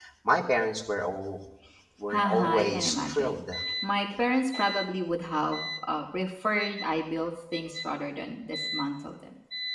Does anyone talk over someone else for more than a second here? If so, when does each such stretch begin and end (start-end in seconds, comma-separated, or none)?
2.1-3.4